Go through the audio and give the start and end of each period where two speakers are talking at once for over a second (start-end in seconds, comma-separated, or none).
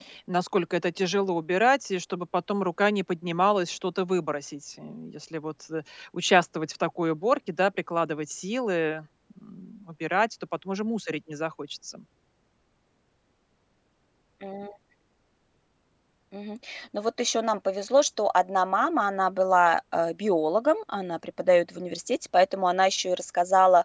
none